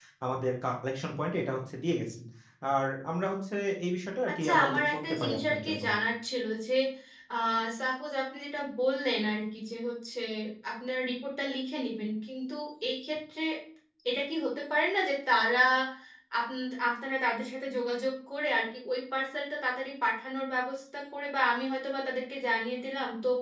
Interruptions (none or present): present